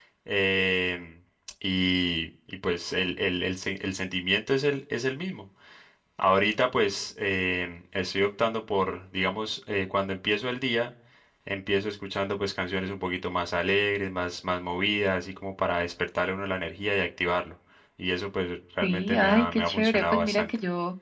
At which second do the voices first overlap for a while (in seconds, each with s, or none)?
18.8 s